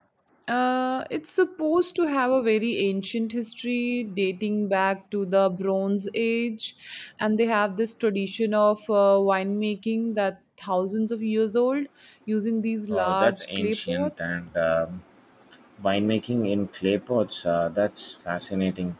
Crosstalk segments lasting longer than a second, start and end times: 12.9-14.3

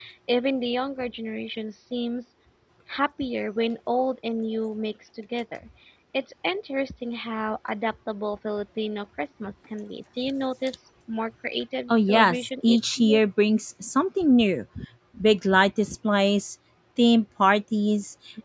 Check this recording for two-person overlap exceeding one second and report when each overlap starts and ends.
11.9-13.2

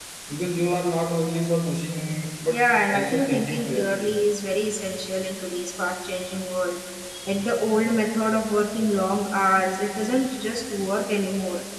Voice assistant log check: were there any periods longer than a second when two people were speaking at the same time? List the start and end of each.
2.5-4.1

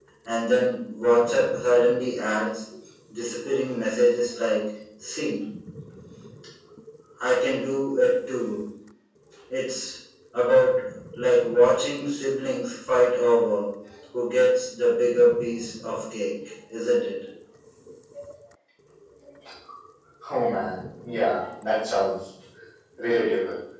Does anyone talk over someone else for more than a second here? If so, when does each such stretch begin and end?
none

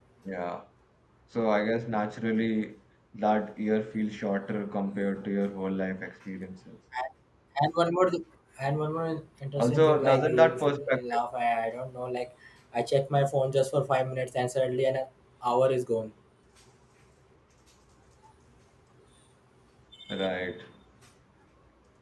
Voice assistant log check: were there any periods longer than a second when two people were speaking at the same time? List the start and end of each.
9.6-11.2

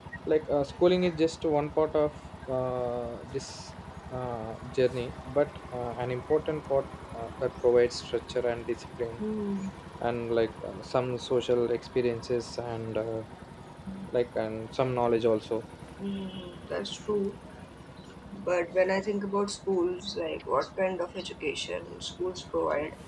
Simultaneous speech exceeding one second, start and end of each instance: none

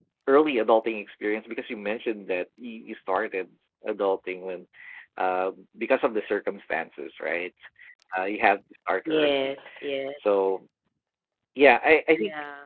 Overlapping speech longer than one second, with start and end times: none

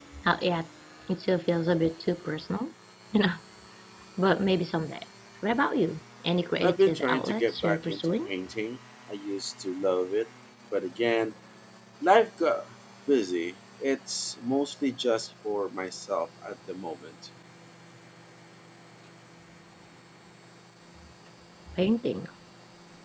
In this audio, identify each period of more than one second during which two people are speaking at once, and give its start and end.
6.6-8.3

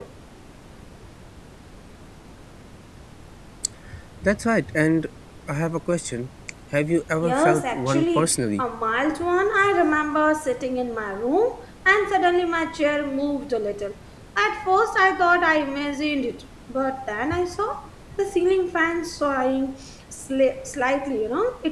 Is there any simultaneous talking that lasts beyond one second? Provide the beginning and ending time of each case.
7.2-8.6

